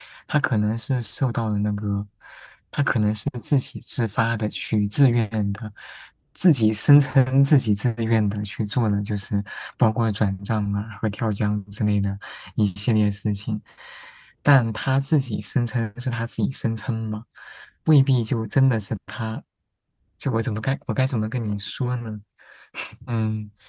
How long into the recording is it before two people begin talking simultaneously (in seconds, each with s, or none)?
none